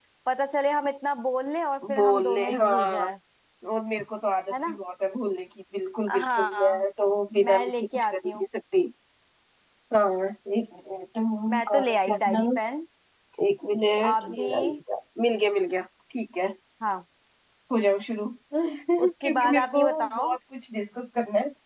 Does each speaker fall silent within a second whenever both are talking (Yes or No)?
No